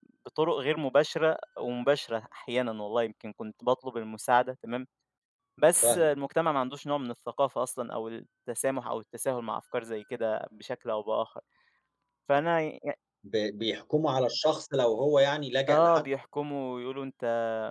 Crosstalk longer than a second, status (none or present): none